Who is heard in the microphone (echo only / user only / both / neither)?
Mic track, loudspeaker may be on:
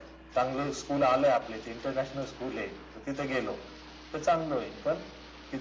echo only